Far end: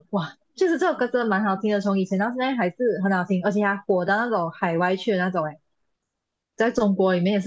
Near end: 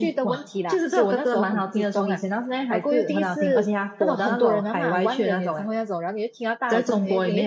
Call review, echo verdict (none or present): present